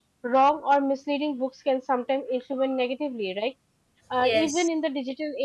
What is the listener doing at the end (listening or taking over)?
listening